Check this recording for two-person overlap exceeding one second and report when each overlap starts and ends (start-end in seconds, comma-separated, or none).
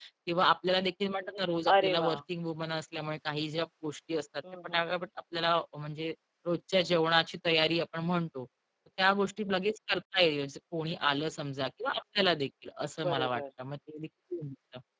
none